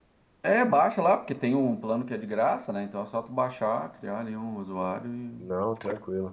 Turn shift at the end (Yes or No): Yes